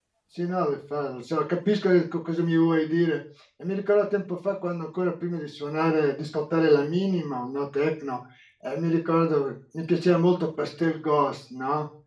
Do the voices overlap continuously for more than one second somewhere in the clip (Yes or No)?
No